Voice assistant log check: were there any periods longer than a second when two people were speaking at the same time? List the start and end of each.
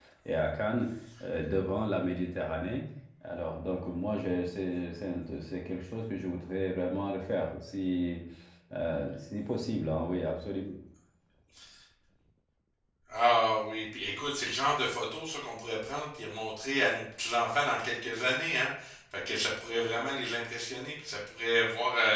none

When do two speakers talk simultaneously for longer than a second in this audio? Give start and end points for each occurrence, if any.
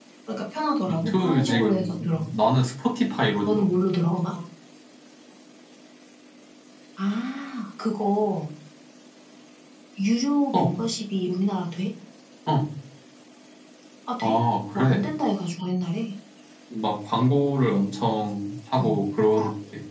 0.9-2.2

